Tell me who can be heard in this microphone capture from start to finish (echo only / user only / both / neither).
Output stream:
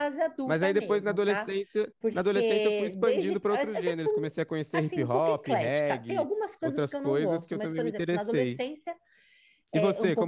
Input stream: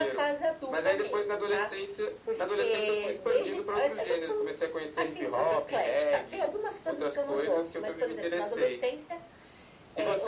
echo only